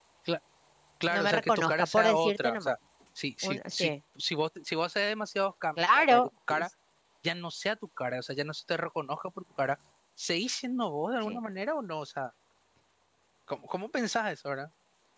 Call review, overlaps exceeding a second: present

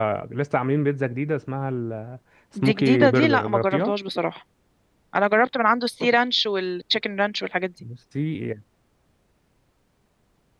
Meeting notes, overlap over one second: present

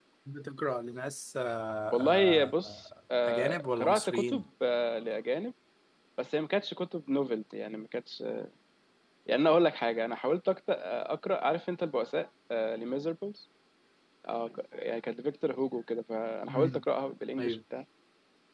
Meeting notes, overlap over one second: present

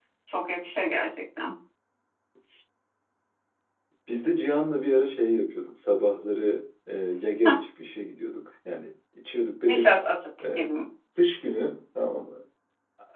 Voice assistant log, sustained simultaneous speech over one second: none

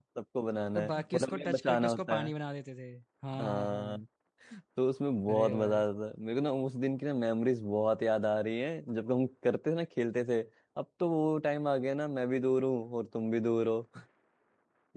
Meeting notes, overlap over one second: present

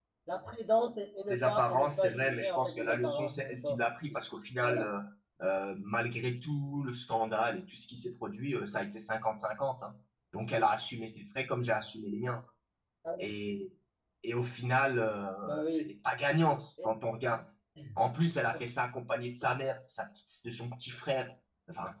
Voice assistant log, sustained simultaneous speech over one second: present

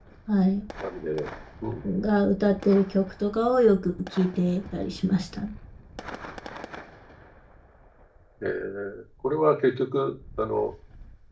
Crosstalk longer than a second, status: none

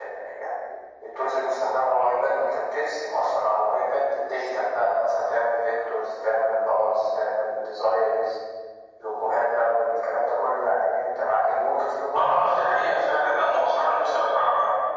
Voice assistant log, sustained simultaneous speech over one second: present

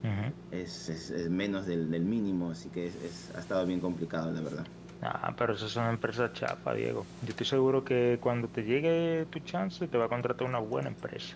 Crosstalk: none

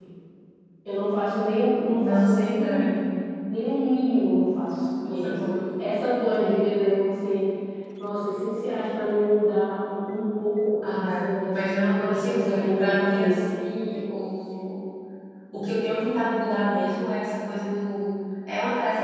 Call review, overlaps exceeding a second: present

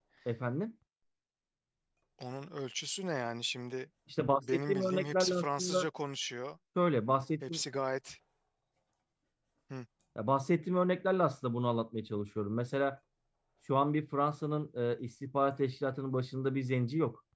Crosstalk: present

